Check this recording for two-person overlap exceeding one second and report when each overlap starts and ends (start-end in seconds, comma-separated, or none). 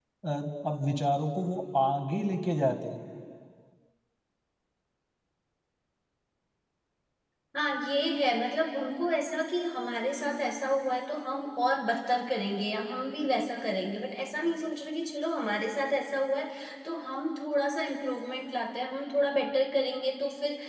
none